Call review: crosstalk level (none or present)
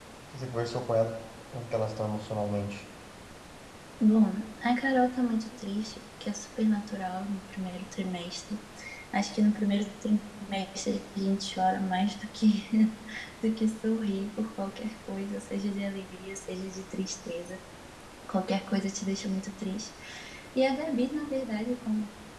none